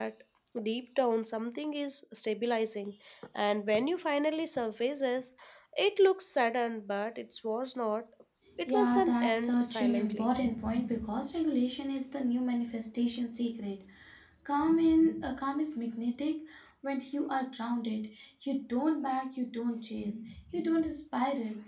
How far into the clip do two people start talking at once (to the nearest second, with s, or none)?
9 s